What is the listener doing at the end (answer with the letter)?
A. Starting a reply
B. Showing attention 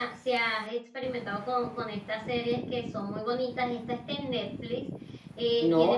A